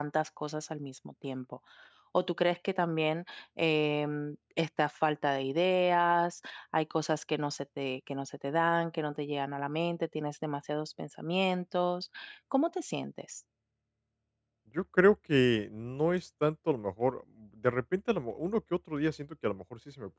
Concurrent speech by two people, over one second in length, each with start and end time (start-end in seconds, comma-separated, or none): none